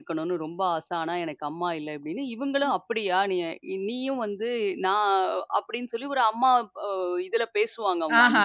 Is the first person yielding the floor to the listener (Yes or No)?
Yes